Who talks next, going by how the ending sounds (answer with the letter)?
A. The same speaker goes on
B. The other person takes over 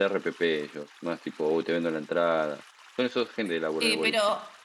B